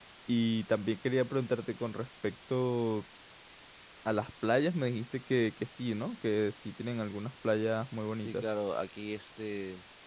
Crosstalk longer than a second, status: none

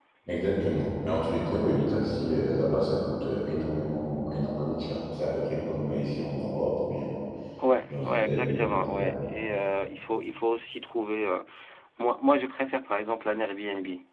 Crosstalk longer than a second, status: present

